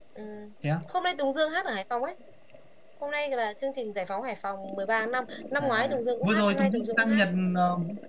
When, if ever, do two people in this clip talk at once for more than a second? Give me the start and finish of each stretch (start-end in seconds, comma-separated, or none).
5.6-7.2